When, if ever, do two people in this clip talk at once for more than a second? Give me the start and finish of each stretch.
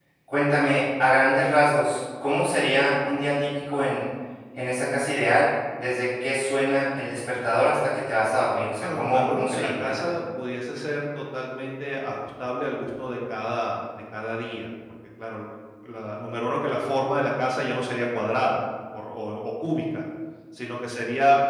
8.8-10.1

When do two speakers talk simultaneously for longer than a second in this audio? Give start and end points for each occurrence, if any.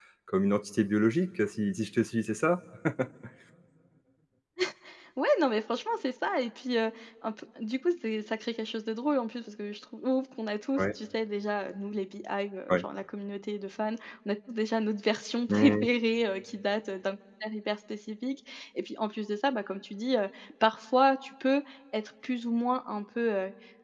none

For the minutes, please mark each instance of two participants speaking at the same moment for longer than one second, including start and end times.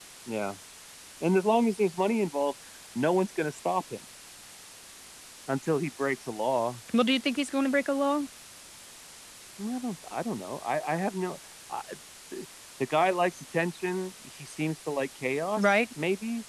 none

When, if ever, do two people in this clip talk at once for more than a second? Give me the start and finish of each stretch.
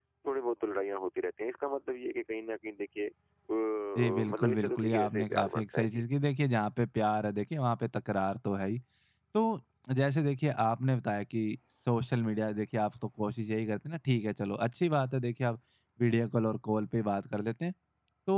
4.0-6.0

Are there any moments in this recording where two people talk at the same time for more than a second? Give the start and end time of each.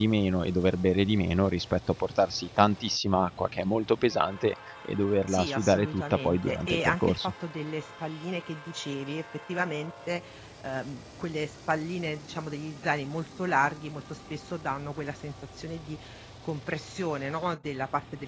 5.3-7.3

